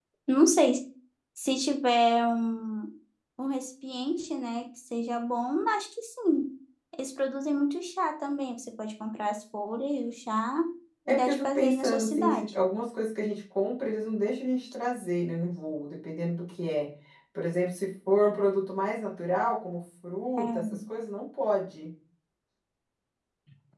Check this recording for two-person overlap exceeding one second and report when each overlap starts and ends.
11.1-12.5

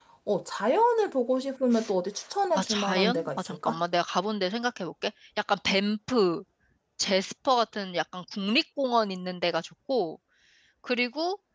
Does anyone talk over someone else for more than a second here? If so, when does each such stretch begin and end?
2.5-3.8

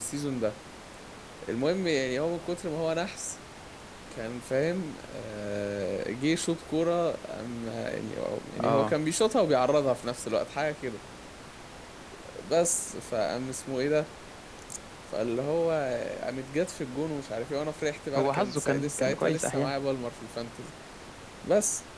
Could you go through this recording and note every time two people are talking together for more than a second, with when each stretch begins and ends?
18.2-19.7

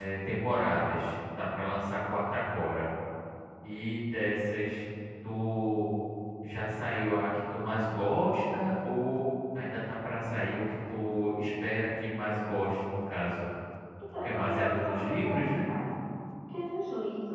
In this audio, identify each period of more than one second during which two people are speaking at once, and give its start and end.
14.2-15.6

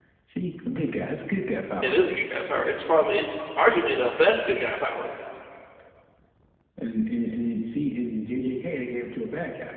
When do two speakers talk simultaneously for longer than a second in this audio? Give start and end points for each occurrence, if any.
none

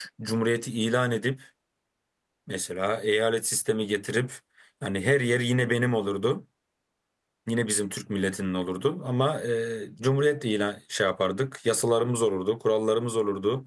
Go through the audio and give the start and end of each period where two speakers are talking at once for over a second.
none

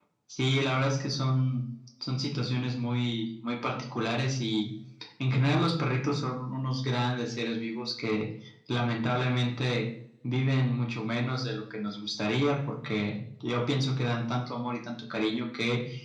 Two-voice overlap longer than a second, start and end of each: none

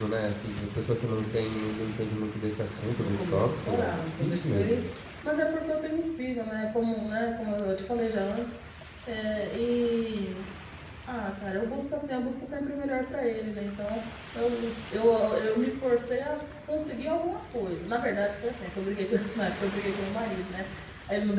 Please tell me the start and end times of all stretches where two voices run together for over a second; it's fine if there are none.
2.9-4.8

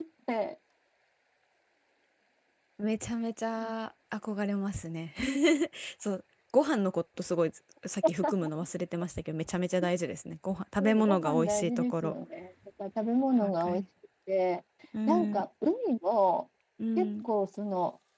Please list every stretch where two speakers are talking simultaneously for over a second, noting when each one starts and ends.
10.8-12.1

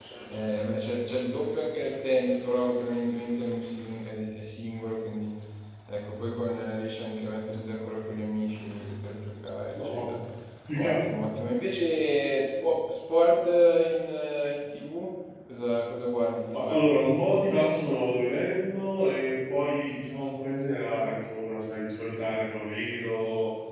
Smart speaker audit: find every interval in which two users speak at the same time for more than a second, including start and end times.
none

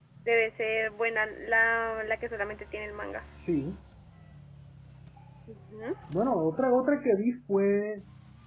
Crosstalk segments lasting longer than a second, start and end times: none

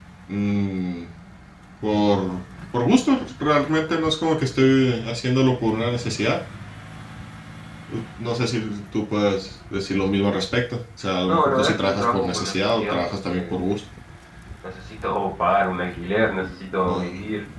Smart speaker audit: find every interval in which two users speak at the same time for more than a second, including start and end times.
11.3-13.5

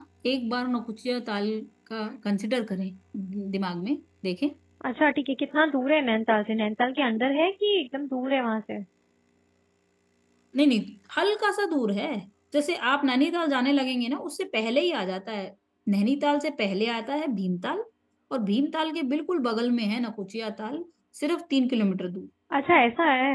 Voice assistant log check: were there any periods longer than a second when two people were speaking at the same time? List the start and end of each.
none

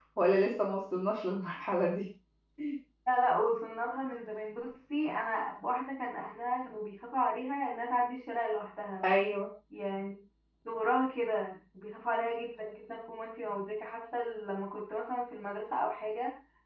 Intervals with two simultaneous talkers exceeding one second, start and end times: none

